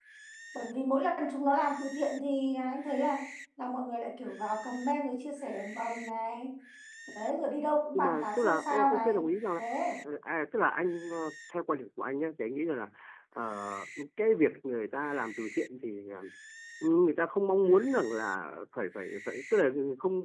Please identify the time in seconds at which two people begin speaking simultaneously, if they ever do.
7.9 s

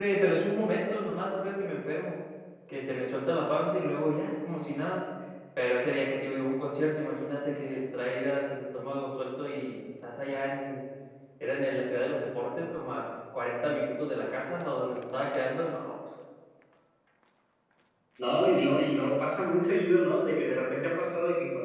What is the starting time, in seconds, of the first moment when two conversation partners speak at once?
none

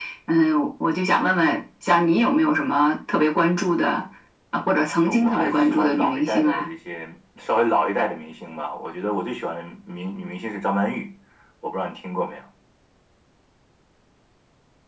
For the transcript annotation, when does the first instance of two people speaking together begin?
5.0 s

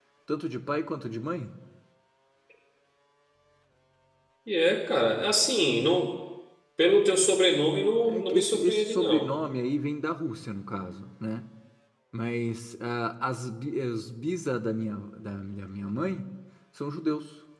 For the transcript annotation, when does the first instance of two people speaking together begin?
8.0 s

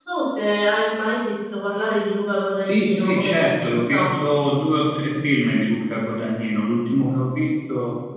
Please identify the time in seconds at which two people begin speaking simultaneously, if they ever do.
2.7 s

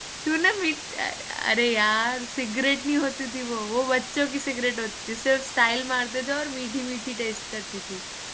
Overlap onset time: none

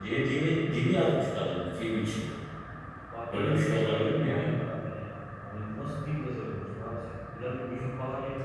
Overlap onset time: 3.3 s

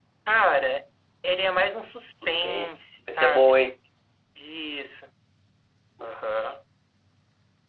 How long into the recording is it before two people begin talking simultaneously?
2.1 s

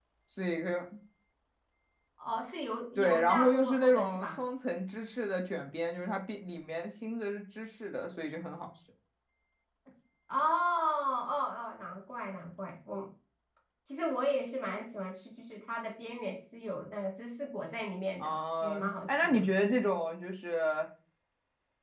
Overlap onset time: 3.0 s

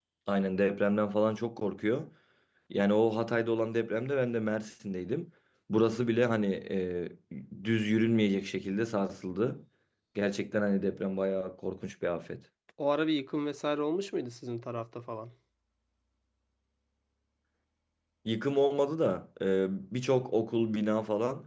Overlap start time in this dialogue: none

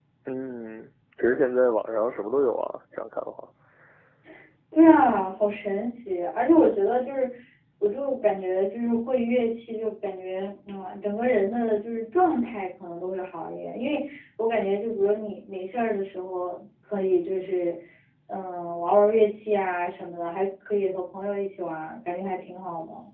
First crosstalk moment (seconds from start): none

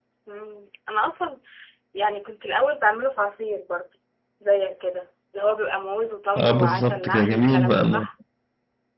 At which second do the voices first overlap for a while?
6.4 s

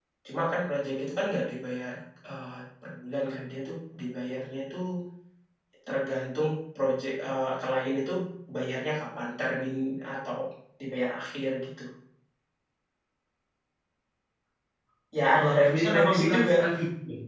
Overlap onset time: 15.3 s

